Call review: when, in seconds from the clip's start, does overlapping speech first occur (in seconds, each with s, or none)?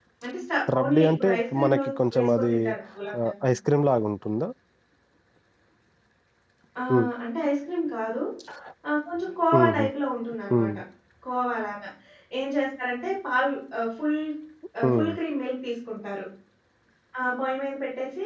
0.7 s